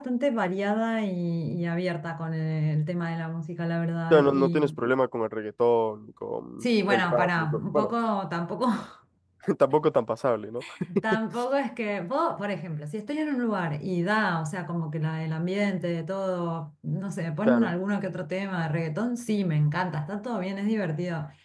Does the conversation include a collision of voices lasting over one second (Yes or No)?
Yes